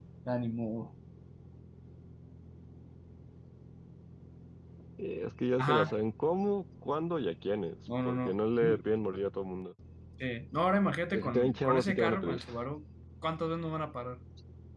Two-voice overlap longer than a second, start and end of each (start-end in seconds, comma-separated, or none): 11.1-12.4